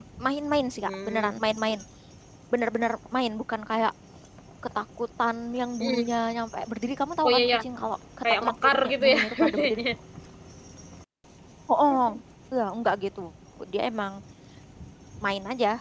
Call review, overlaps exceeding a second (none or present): present